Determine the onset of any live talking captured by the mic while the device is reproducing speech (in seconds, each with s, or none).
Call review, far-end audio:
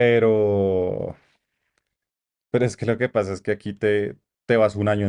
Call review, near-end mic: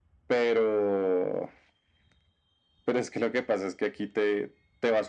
none